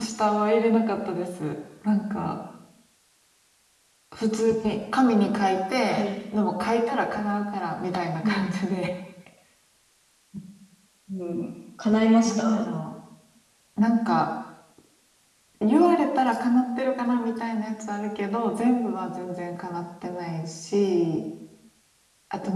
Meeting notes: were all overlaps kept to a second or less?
Yes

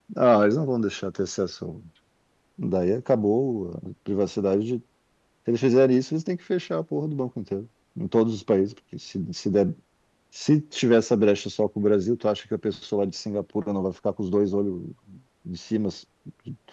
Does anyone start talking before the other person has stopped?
No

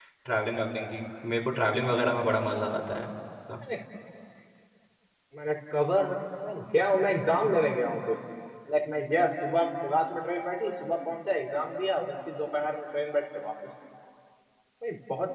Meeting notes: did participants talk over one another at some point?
No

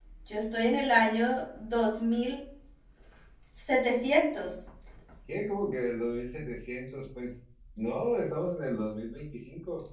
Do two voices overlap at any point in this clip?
No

